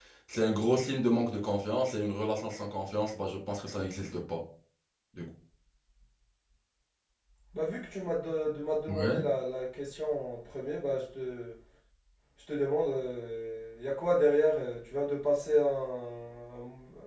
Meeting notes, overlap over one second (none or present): none